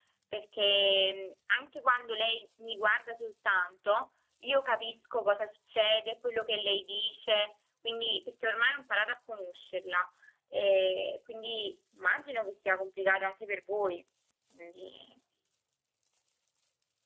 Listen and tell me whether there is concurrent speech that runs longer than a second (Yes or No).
No